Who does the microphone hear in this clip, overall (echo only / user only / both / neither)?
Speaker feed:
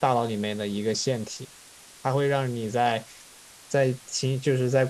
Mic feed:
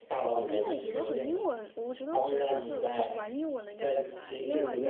both